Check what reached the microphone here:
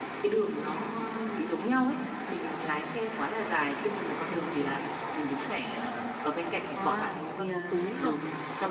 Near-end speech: present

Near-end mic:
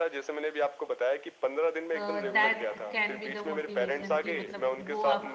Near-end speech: present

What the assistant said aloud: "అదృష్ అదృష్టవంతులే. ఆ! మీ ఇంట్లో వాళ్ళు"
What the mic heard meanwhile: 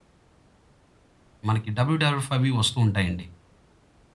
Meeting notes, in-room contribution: present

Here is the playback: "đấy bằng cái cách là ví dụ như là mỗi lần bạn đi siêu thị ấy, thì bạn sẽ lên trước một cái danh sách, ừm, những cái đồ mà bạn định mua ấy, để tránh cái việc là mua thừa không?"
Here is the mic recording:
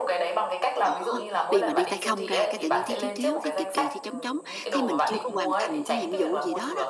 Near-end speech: present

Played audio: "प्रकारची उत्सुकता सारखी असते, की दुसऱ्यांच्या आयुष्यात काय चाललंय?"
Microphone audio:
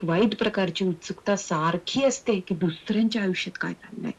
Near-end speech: none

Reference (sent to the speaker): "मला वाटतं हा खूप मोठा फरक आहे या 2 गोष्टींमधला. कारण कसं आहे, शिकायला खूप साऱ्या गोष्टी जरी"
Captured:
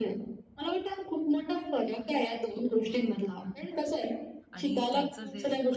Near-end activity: present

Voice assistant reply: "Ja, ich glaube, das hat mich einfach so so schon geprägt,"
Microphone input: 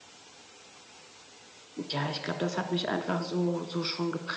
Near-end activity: none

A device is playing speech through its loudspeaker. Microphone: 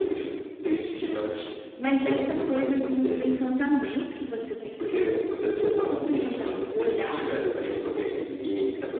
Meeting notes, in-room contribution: present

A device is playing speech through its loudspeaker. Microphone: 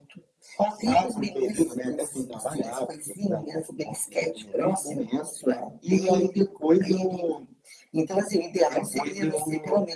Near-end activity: none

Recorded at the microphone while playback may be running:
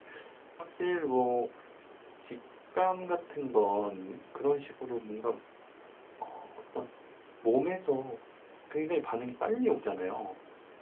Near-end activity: present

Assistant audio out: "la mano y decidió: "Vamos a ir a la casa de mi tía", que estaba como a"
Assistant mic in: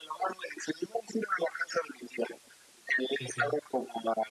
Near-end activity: present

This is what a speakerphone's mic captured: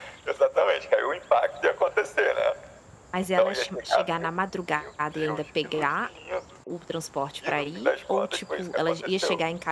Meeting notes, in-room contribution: present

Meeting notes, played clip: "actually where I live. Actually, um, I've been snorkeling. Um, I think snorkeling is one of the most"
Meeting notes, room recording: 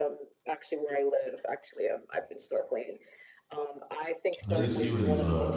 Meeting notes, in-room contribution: present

